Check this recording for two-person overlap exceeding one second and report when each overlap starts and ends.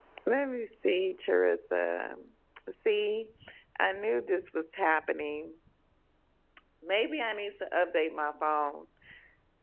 none

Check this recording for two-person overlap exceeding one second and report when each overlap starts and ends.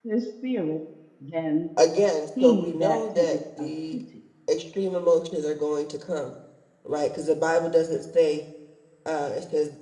2.4-4.0

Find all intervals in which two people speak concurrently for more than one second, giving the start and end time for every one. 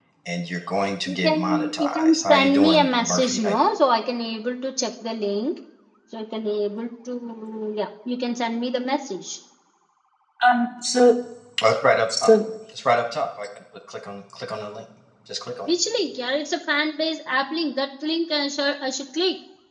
1.1-3.6

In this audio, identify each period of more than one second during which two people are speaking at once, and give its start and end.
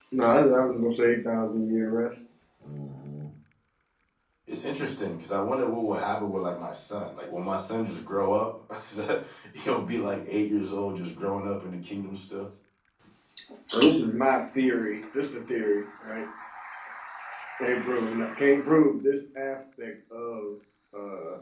none

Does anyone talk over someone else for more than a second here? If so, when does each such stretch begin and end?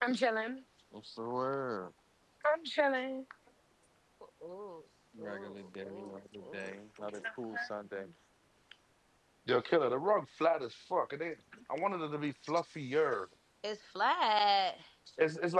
5.2-7.3

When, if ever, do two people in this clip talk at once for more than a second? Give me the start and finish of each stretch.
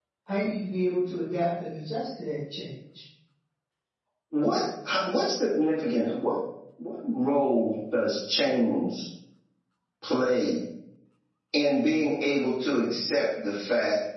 none

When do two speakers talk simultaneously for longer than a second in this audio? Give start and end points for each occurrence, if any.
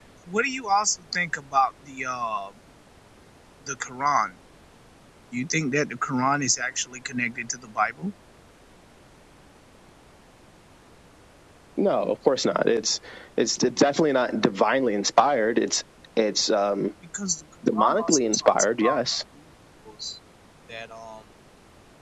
17.8-19.0

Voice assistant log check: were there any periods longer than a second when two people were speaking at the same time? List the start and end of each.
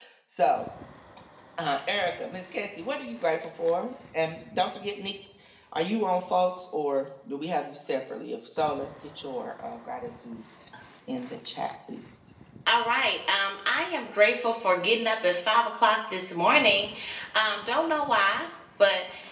none

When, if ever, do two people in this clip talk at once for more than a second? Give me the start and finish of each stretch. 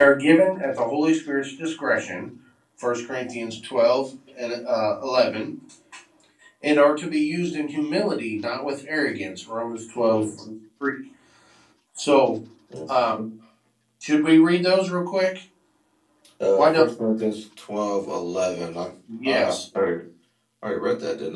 none

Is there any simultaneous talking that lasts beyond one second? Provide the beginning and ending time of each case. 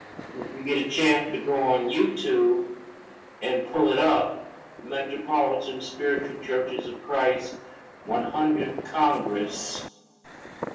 none

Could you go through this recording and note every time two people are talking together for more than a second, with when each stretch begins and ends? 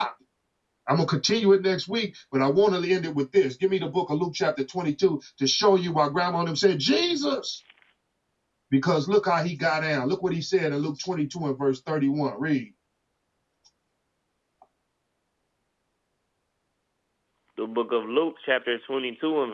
none

